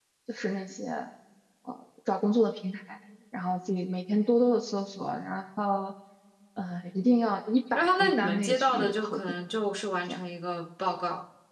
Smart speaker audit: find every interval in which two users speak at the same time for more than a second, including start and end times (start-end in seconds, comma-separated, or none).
7.7-9.2